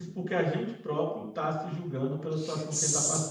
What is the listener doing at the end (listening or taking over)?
taking over